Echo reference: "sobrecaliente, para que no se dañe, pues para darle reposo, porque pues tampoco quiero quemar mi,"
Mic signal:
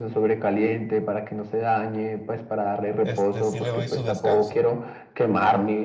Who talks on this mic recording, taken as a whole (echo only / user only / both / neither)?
both